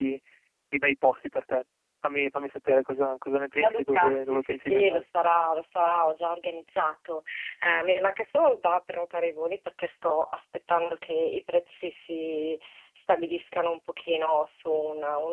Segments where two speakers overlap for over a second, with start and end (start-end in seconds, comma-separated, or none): 3.5-5.0